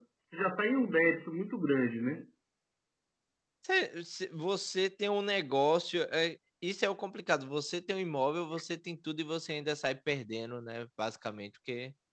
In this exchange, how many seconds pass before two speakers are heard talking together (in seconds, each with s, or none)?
none